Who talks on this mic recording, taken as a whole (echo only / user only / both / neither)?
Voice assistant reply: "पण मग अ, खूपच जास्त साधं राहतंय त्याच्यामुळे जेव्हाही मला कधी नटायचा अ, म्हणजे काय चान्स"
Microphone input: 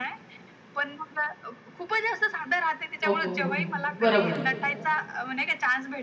both